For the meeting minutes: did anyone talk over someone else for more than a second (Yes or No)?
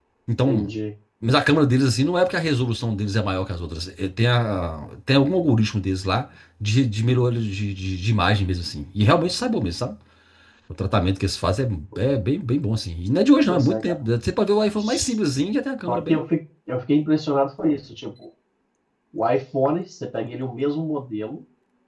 No